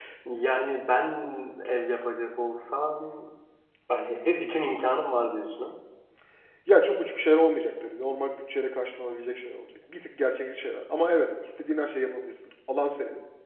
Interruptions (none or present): none